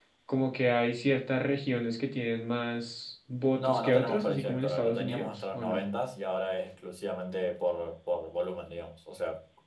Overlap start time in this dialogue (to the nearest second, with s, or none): 4 s